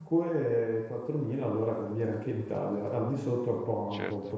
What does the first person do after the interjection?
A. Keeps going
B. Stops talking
B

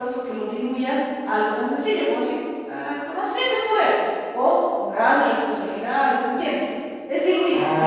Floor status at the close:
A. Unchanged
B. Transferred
A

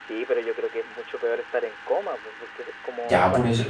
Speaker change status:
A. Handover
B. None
A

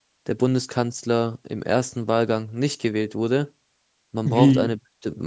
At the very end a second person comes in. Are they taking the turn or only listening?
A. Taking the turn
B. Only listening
B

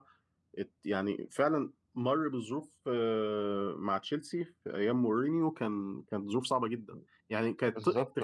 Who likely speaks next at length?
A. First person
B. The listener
A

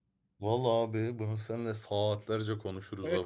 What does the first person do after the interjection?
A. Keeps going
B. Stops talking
B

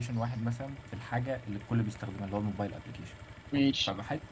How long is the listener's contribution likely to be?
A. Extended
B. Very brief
B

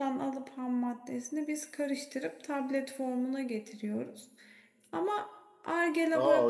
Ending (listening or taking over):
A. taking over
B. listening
A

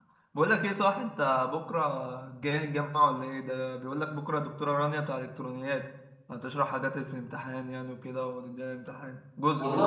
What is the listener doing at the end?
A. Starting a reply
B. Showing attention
A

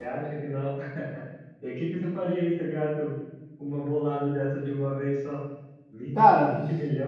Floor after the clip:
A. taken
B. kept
B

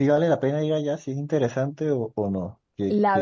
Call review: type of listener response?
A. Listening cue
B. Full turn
B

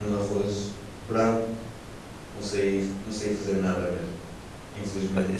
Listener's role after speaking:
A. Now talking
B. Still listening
A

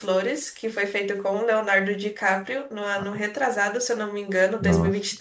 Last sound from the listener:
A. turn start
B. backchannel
A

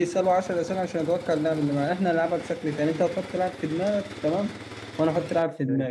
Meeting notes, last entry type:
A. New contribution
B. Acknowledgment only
B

